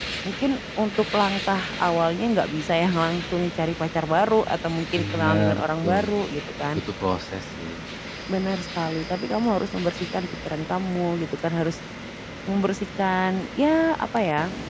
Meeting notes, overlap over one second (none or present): present